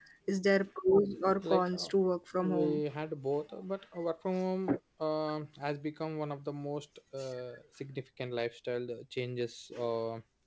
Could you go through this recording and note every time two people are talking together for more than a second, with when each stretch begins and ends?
none

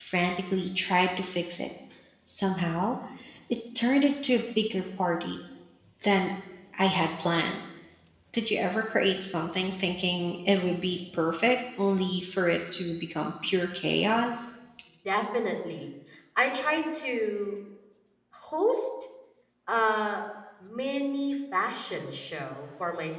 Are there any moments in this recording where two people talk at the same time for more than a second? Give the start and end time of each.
none

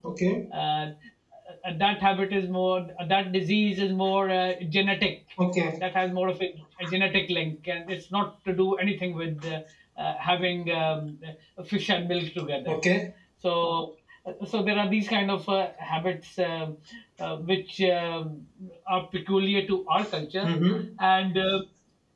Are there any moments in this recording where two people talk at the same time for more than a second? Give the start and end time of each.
none

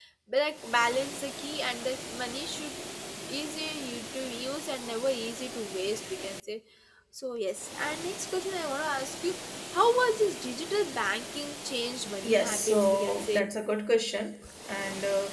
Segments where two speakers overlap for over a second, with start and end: 12.2-13.5

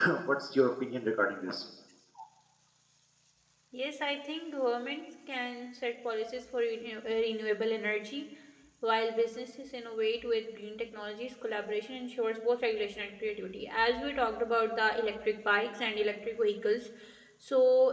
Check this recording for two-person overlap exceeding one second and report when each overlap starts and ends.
none

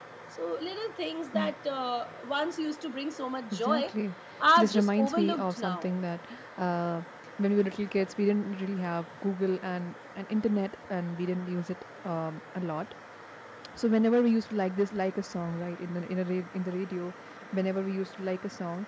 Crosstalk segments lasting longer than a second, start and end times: 4.6-5.9

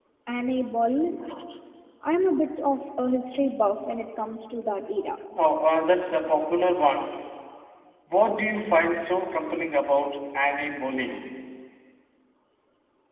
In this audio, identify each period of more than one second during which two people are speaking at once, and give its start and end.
none

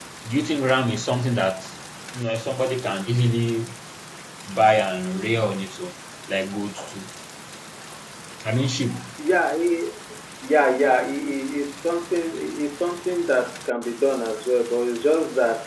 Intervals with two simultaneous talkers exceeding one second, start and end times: none

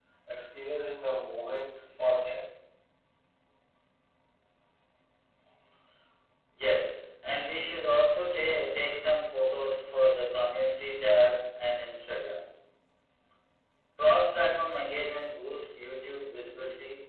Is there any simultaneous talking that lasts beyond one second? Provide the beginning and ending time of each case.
none

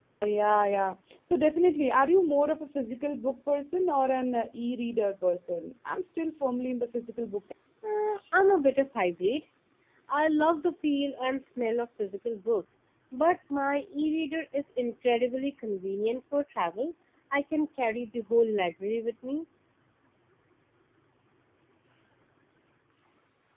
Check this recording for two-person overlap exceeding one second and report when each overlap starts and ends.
none

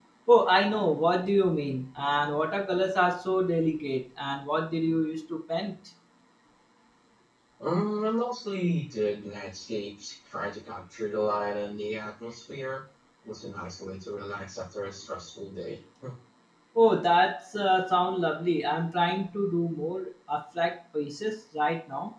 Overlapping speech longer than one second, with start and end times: none

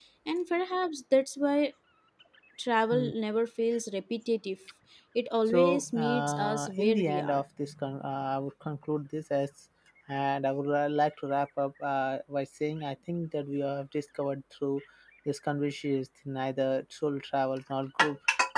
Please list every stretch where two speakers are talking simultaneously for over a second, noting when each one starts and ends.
5.5-7.4

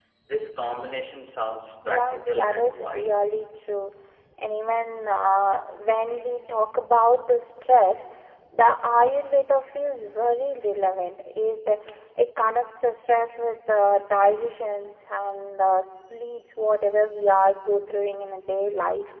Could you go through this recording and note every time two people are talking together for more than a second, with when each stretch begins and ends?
1.8-3.3

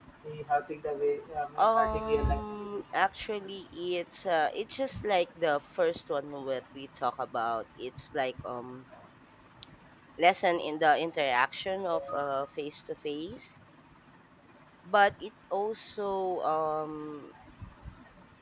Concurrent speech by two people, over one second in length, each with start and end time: 1.6-2.8

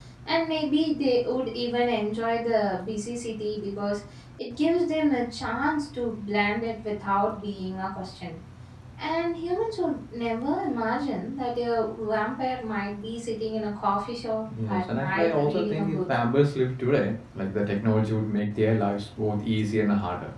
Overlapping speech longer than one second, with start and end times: 14.7-16.1

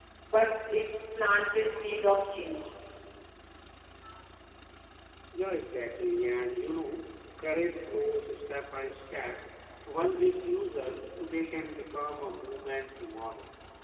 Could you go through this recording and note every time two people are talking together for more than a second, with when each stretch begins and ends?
none

